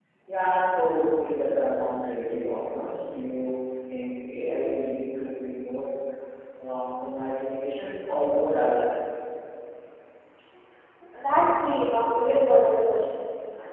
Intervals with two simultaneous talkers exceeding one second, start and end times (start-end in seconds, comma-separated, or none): none